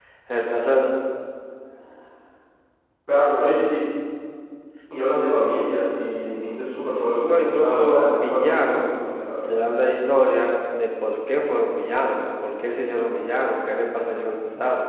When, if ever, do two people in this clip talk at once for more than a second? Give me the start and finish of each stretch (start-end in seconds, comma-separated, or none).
7.2-8.8